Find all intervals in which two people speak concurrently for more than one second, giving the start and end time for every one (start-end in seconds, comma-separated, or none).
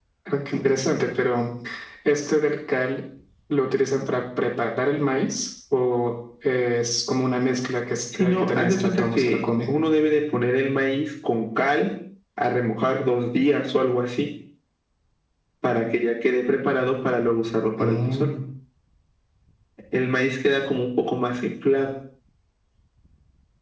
8.1-9.4